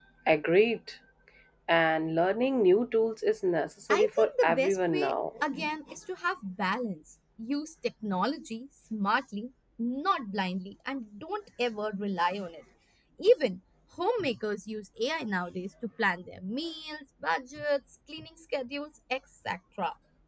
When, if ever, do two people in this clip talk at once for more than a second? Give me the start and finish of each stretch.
3.9-5.1

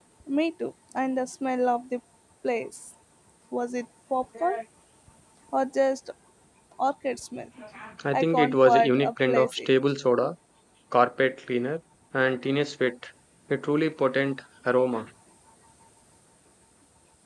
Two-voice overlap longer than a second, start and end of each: 8.1-9.7

